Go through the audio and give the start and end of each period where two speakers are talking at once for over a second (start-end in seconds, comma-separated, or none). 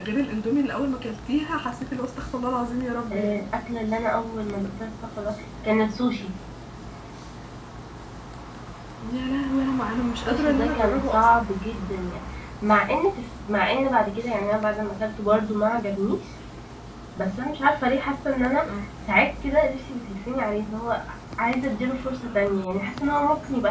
10.3-11.5